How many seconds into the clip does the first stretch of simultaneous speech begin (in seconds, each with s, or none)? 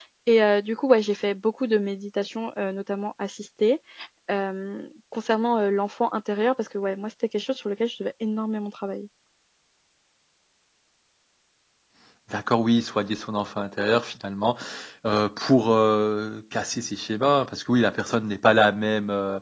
none